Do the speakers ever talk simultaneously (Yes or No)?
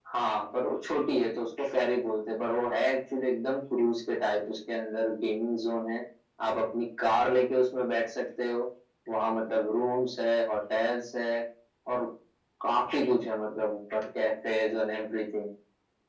No